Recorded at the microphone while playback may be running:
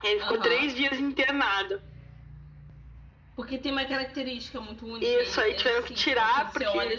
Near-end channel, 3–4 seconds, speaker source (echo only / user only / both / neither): user only